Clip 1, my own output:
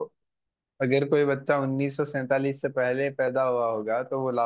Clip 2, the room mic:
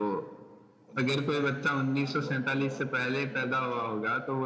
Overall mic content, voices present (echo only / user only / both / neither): both